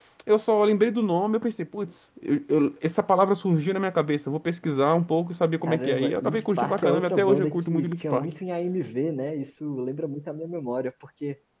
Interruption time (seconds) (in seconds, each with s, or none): 5.6 s